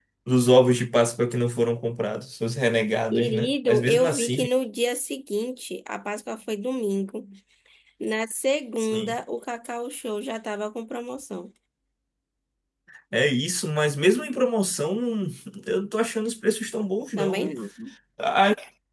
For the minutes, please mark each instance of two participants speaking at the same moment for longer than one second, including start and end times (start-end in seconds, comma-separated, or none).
3.1-4.5